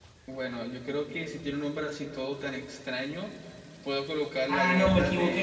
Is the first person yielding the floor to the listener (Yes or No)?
Yes